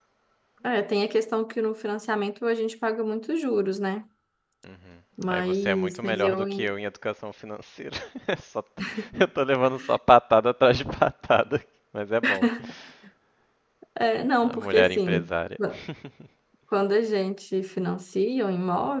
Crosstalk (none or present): present